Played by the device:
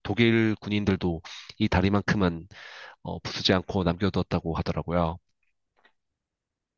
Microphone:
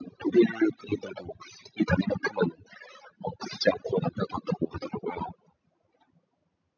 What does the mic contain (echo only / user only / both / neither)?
echo only